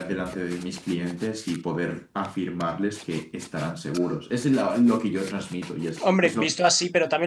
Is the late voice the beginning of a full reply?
Yes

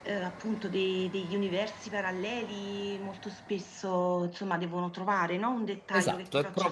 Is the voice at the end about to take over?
Yes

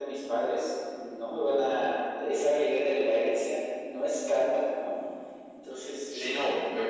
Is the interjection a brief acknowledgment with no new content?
No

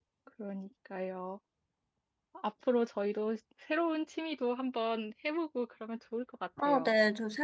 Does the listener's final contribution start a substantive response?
Yes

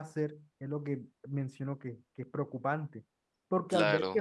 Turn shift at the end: No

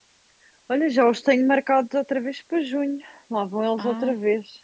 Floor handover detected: Yes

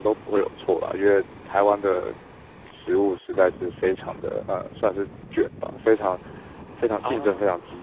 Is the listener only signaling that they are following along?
Yes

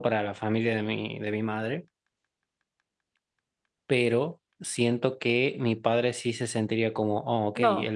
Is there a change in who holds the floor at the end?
Yes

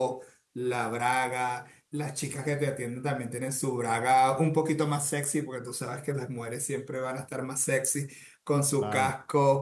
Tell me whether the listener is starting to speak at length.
No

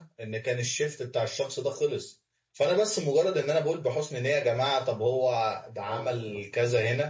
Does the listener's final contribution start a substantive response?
No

